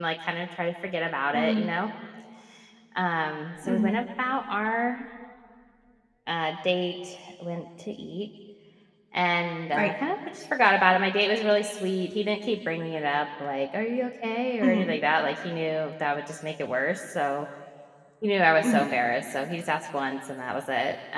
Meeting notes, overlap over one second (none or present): none